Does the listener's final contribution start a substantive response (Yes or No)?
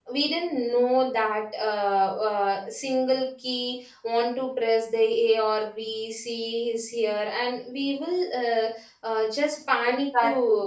Yes